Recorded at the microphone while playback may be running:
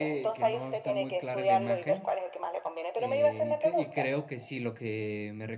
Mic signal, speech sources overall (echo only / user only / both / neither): both